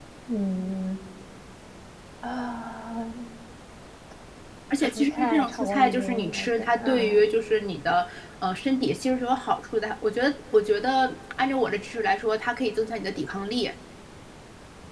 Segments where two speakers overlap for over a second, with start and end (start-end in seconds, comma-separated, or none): 4.8-7.2